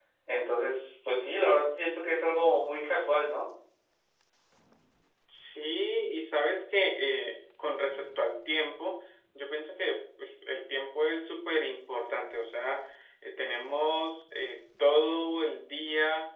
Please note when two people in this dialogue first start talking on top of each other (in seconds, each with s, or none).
none